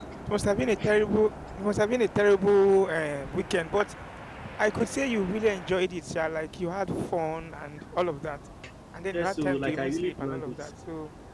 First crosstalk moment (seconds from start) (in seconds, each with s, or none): 9.1 s